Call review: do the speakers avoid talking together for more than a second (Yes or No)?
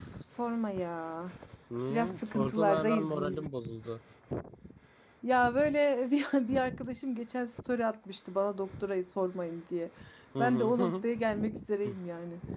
No